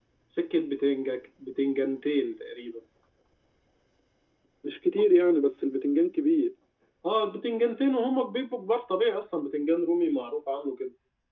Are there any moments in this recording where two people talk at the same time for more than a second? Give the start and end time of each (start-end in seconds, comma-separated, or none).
none